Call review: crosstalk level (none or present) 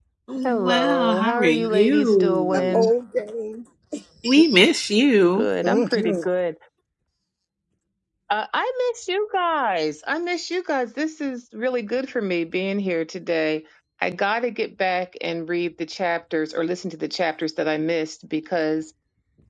present